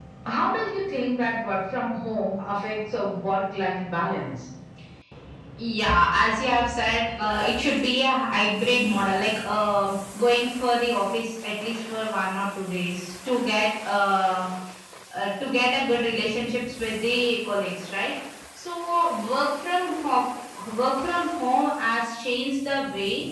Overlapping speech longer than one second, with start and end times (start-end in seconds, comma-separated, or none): none